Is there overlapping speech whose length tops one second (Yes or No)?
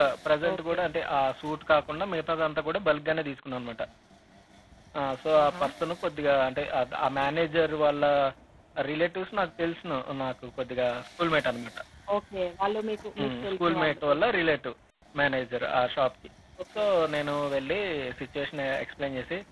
Yes